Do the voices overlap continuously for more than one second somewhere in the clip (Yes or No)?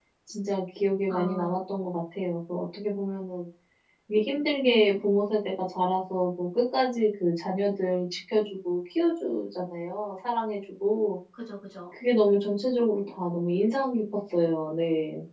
No